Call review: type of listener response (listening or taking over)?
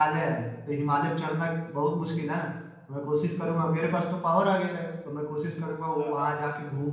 listening